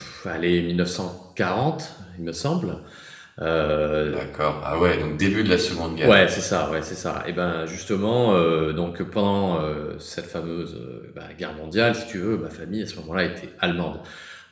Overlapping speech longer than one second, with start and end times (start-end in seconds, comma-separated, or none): none